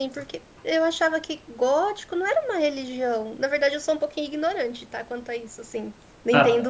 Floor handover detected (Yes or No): Yes